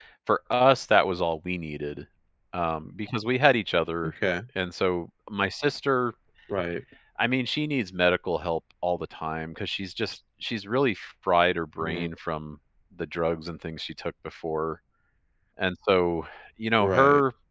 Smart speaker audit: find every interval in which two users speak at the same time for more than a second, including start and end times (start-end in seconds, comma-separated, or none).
none